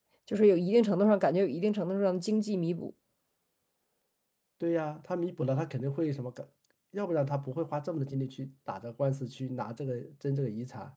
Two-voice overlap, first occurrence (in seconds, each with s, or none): none